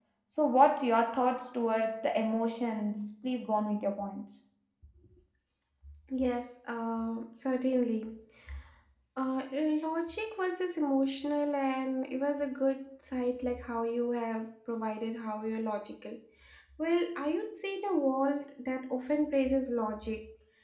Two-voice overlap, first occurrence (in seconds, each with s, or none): none